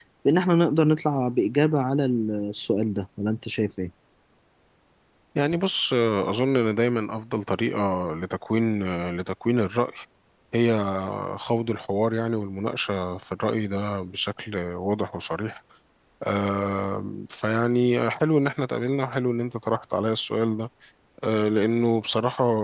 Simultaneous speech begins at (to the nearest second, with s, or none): none